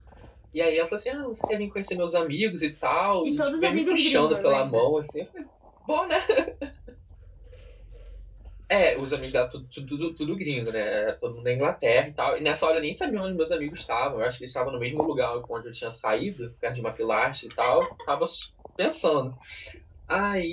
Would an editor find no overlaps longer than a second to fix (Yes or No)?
No